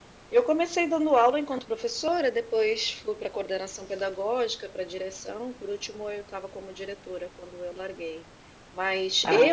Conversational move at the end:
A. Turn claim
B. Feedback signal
B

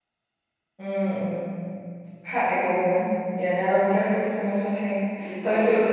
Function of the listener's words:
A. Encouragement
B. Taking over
A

